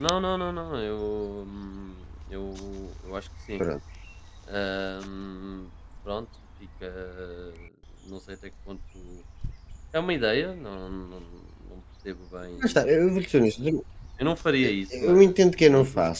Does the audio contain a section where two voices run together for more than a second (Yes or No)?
Yes